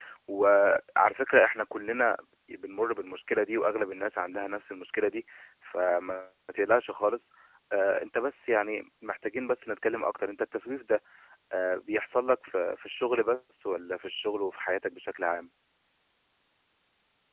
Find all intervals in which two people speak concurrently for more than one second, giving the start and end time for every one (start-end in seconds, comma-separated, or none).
none